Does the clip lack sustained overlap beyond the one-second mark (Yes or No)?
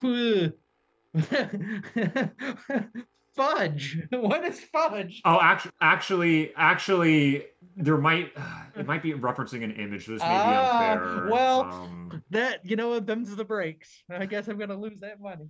No